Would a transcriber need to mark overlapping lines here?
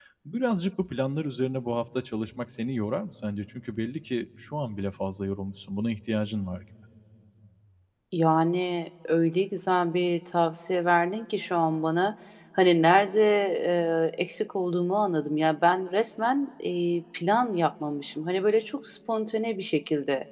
No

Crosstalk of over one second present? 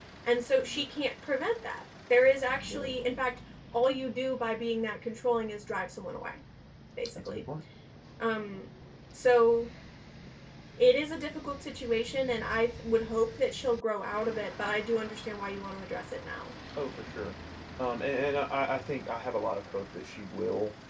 No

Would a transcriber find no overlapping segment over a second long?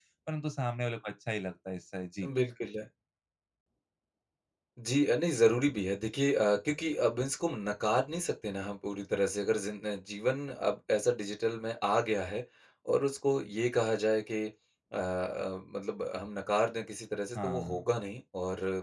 Yes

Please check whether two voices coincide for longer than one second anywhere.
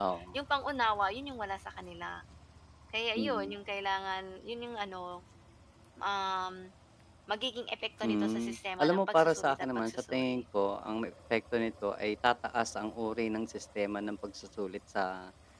Yes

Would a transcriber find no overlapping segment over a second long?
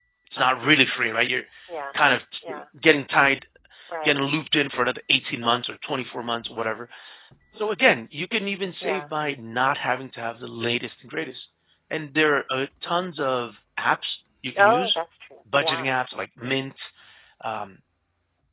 Yes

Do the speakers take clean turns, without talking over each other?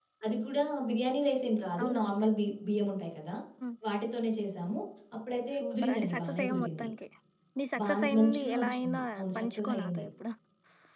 No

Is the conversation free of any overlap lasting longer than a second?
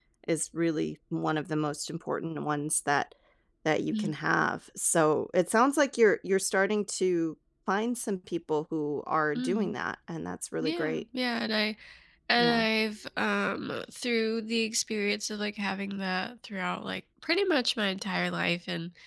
Yes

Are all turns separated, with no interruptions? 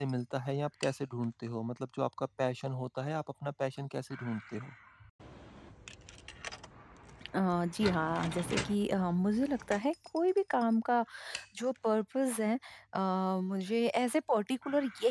Yes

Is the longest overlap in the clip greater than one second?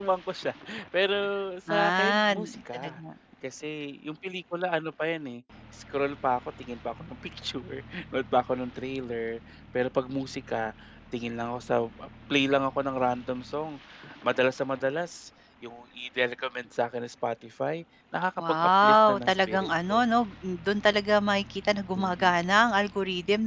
Yes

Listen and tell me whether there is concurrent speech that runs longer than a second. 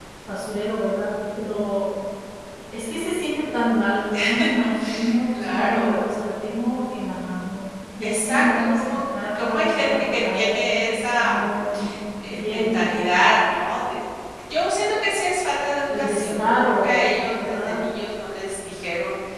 Yes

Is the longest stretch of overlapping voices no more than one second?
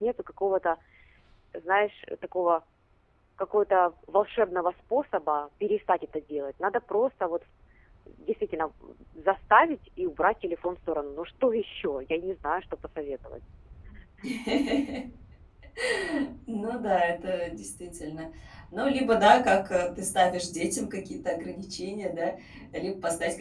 Yes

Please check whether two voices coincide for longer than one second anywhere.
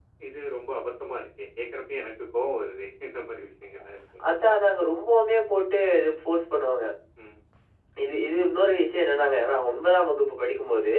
No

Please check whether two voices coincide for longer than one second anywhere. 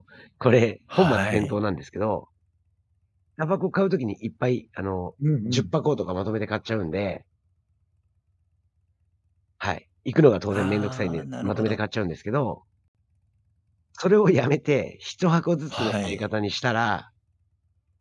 Yes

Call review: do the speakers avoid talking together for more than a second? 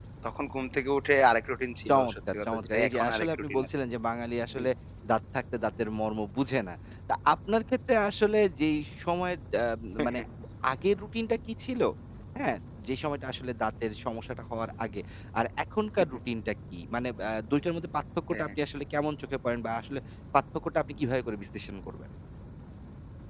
No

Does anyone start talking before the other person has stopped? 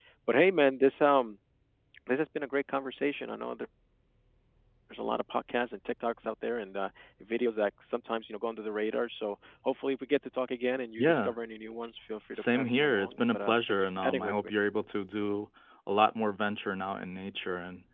Yes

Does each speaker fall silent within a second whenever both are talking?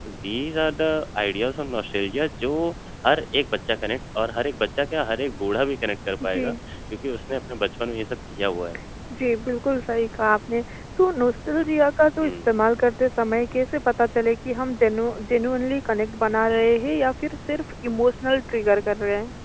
Yes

